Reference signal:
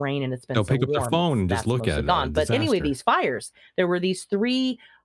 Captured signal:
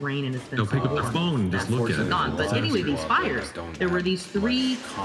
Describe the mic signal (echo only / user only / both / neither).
both